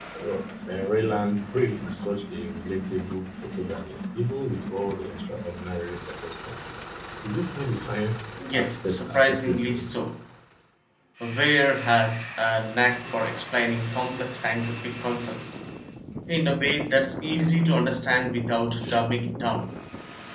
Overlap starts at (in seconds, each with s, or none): 8.4 s